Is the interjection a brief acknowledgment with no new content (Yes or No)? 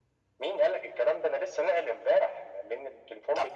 Yes